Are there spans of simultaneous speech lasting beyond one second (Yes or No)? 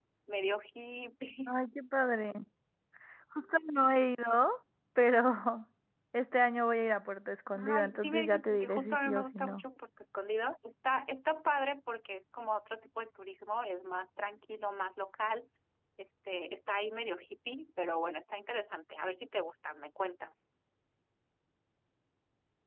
Yes